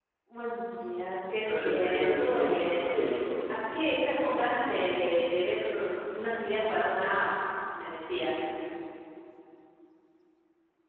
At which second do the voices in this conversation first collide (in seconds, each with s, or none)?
1.5 s